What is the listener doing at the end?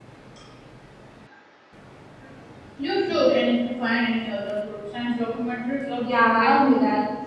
taking over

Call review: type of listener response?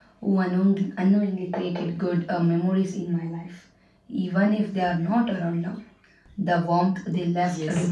taking over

